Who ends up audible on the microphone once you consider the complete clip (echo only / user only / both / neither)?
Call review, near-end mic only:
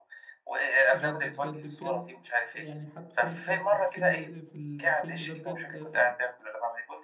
both